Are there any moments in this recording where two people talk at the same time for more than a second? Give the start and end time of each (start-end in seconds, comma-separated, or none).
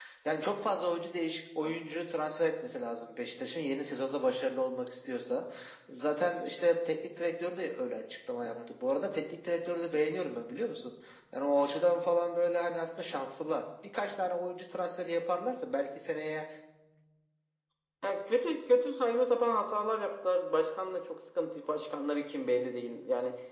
none